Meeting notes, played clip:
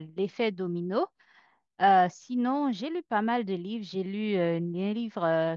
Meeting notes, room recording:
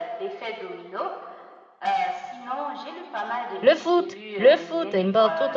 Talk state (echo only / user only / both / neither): both